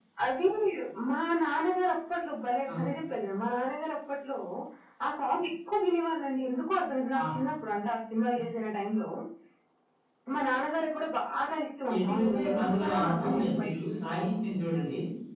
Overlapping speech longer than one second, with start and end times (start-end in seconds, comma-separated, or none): 12.0-13.9